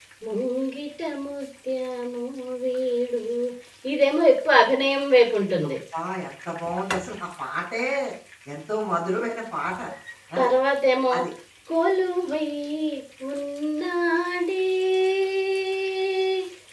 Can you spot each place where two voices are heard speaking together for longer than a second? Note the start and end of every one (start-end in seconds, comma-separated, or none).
none